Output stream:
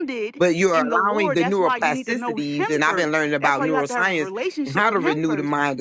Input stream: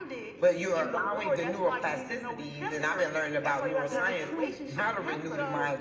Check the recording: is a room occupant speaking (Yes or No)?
Yes